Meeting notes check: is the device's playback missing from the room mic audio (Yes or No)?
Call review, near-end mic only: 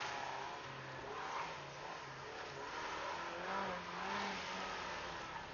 Yes